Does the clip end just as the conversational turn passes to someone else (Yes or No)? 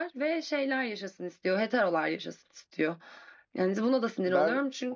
Yes